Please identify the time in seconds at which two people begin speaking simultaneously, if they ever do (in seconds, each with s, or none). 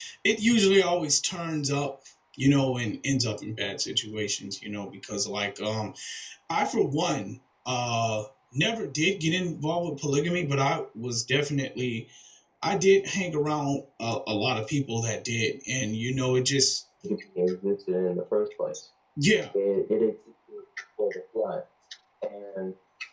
none